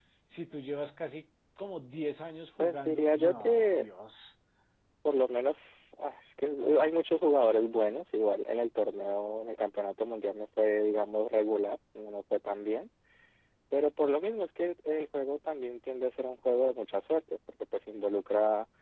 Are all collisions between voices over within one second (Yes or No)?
No